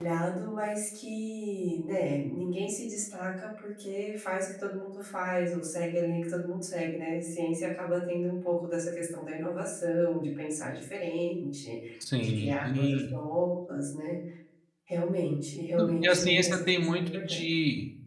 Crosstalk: present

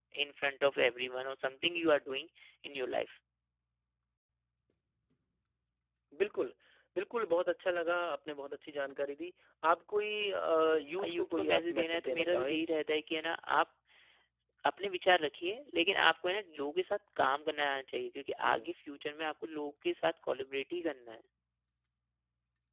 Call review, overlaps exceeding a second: present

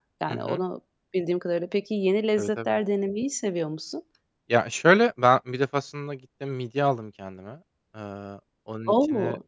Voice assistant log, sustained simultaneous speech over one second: none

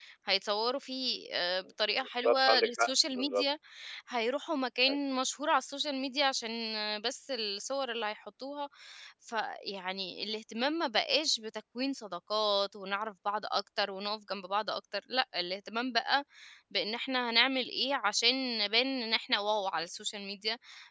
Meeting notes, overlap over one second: present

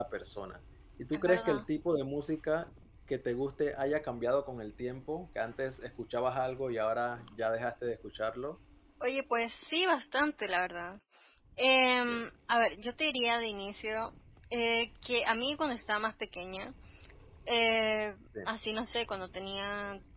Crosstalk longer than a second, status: none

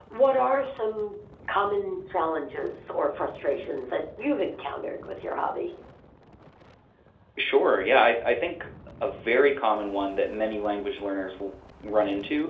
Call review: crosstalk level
none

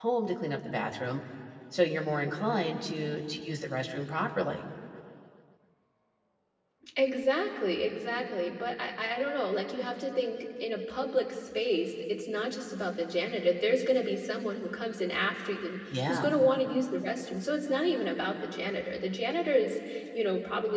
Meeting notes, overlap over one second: none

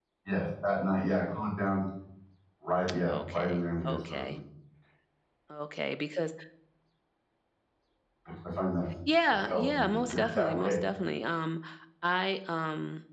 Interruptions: present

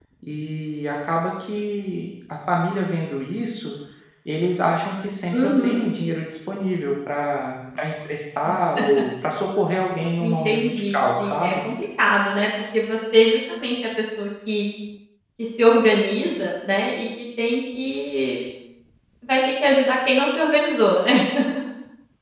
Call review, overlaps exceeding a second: present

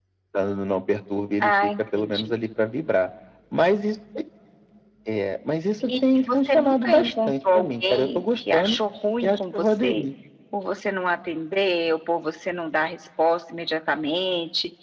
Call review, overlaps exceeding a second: present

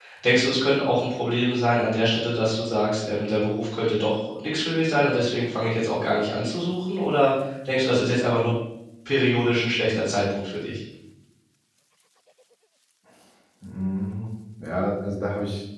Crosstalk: none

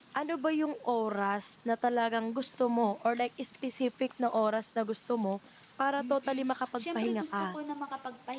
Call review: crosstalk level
present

